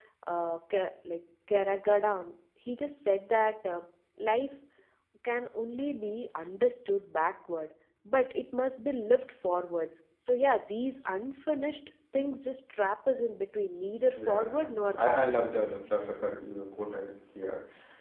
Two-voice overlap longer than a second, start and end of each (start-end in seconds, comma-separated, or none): 14.2-15.6